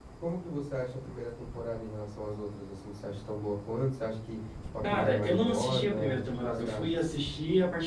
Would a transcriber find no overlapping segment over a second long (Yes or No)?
No